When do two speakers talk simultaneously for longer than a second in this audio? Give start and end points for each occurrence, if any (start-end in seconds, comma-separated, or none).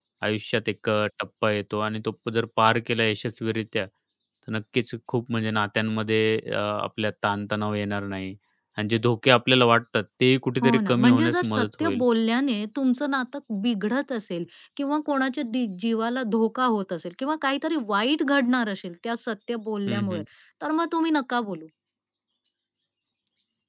10.6-12.0